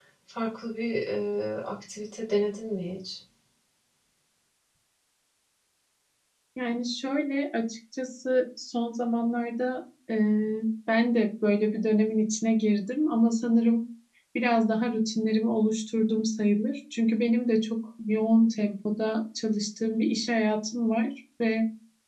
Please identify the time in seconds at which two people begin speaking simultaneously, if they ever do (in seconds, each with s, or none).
none